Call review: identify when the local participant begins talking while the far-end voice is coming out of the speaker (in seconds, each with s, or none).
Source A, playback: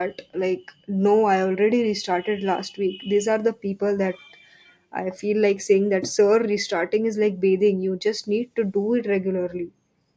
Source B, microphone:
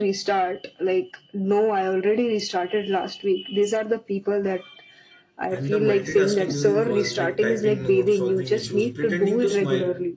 5.5 s